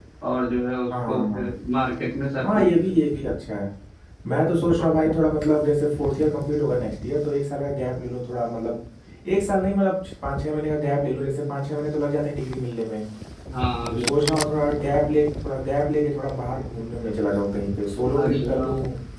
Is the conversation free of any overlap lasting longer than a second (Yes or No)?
Yes